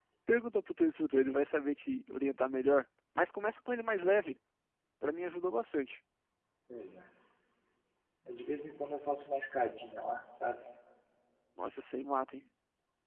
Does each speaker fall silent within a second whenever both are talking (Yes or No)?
Yes